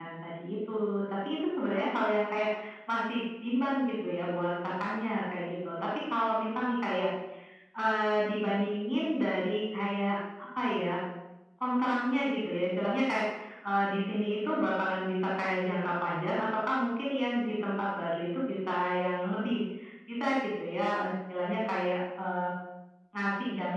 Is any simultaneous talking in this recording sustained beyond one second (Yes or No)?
No